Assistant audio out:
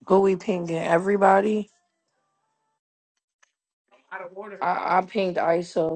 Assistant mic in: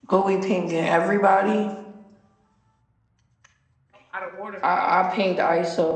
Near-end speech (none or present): none